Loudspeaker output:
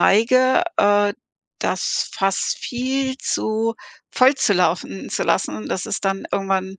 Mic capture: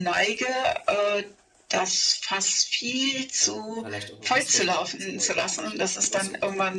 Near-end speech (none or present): present